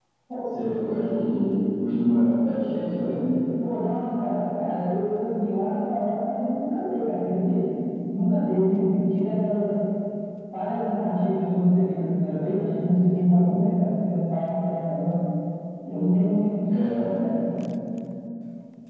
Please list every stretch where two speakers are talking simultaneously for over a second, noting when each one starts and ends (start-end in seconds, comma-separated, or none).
none